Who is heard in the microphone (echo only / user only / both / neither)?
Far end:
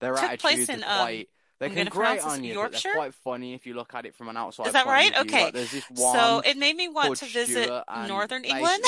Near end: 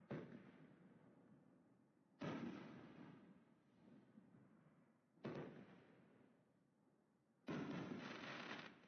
neither